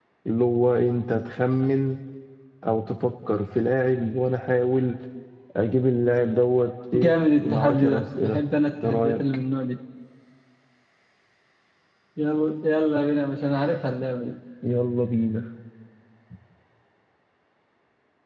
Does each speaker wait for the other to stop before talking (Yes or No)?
No